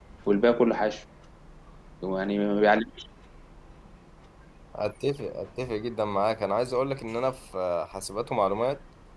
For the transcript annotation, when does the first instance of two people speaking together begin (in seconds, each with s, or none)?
none